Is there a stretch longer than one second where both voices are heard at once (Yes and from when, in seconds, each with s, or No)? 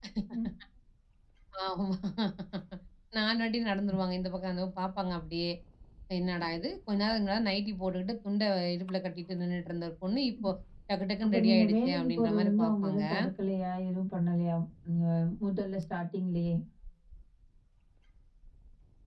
Yes, from 11.2 s